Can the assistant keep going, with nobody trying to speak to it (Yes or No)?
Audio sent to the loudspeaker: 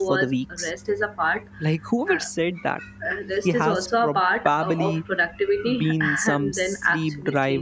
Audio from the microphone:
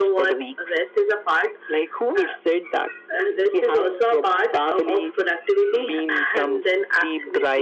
Yes